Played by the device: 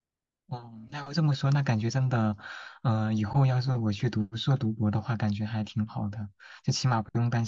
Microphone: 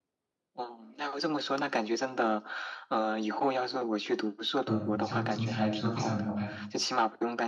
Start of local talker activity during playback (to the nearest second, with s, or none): 5 s